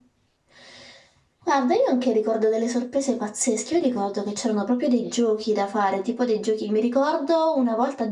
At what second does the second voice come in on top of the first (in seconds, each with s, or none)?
none